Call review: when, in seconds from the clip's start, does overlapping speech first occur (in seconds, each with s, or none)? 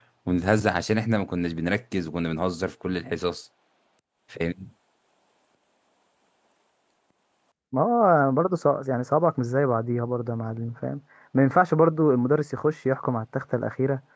none